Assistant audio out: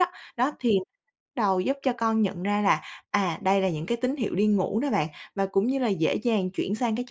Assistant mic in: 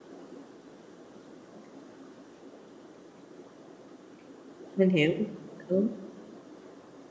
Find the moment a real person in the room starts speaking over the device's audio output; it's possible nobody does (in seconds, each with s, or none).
4.8 s